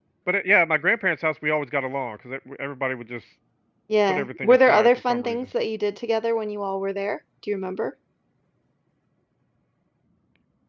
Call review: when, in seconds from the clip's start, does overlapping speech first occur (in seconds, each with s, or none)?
4.1 s